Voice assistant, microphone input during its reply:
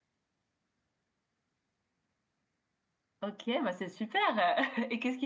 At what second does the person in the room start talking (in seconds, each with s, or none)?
3.2 s